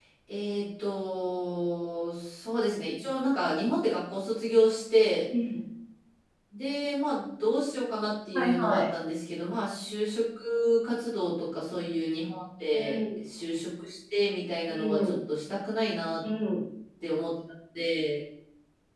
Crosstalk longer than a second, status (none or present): none